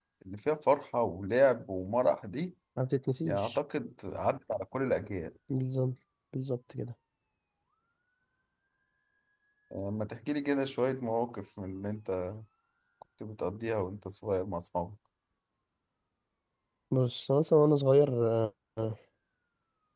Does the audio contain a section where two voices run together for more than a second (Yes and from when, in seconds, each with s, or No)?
No